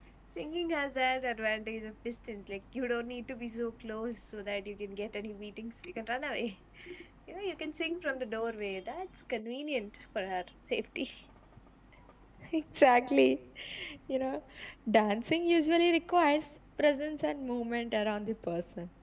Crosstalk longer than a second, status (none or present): none